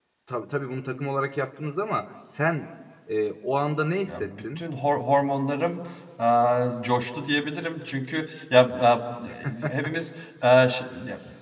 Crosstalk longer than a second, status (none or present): none